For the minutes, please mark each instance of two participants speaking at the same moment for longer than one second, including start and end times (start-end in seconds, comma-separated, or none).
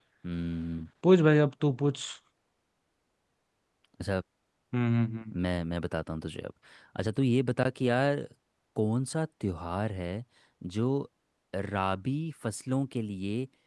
none